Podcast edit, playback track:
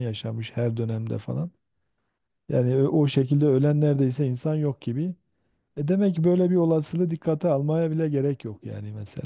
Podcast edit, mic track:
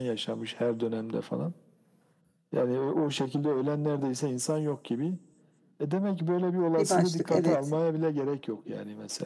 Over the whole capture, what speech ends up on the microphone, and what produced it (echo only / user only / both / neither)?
both